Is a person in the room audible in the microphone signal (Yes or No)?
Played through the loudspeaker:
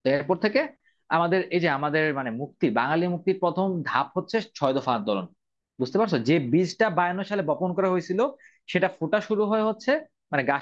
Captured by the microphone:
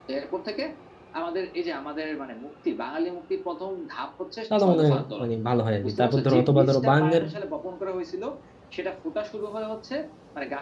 Yes